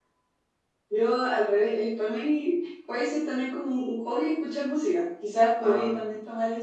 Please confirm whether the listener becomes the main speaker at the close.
No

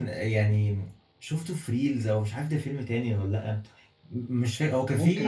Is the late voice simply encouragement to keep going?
Yes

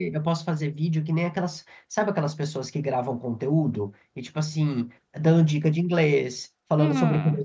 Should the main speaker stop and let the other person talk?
Yes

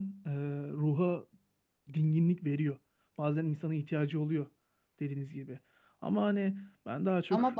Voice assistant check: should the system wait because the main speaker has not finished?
Yes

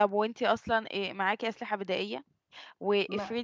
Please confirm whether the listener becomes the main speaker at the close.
No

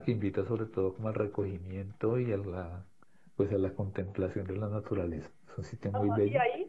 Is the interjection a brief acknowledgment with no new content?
No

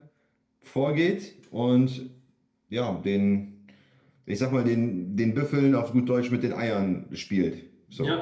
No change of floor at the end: No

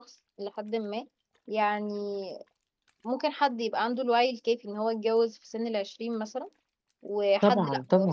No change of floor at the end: Yes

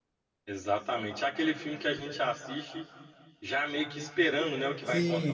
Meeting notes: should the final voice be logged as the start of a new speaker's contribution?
Yes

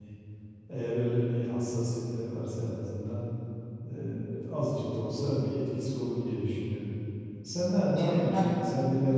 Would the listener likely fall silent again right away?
Yes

